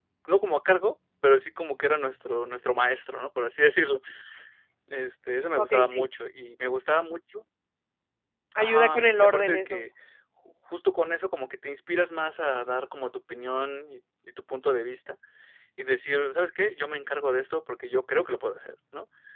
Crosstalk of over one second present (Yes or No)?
Yes